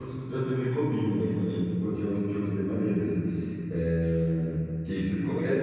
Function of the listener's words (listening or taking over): listening